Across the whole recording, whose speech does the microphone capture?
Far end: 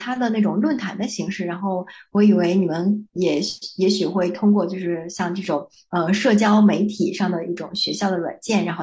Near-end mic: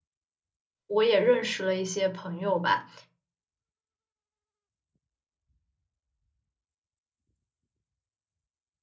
user only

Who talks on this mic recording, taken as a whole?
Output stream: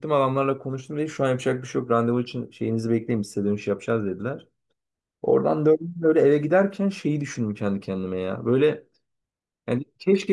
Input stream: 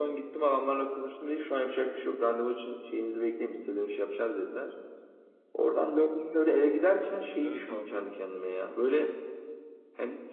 both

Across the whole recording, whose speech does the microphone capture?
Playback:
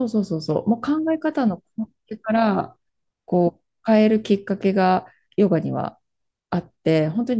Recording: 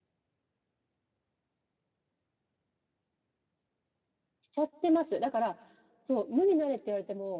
user only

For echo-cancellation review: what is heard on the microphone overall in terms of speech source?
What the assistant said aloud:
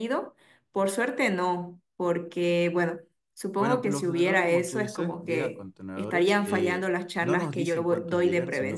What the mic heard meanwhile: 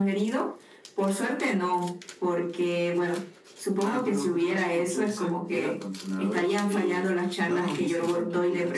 echo only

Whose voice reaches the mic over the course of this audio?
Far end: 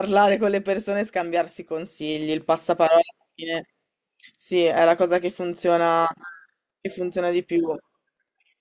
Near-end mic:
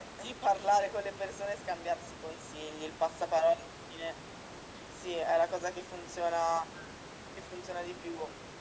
echo only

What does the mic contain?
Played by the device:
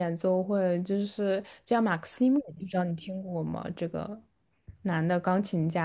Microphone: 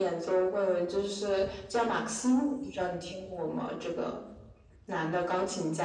echo only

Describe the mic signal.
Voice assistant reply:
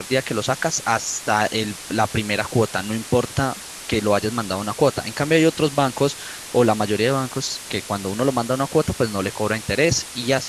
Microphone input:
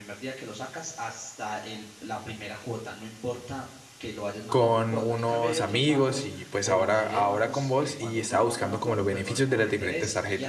both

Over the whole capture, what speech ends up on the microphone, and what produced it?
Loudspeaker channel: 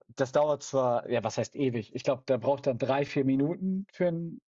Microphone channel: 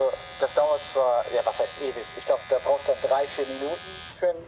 echo only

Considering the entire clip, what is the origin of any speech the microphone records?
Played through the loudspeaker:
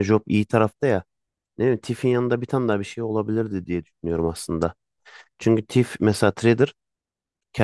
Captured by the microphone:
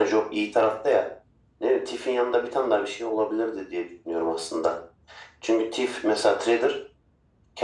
echo only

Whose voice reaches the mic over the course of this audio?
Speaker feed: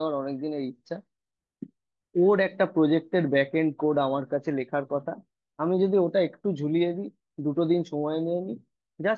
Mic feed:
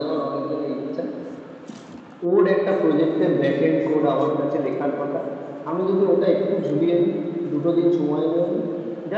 echo only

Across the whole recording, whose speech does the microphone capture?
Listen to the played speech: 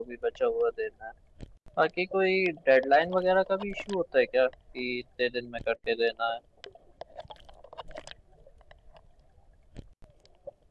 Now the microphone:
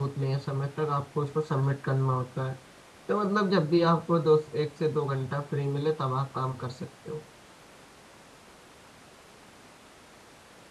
user only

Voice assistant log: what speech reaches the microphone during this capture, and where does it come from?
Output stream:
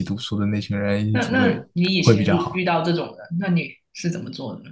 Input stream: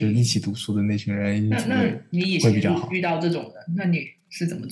echo only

